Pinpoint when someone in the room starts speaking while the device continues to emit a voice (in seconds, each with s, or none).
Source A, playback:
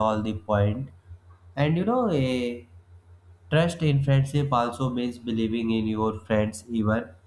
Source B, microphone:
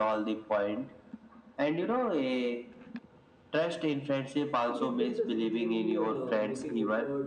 4.6 s